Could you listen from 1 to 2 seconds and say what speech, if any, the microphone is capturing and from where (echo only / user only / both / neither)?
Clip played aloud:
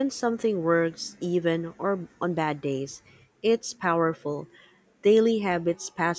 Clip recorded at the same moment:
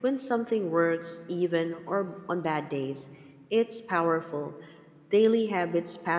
echo only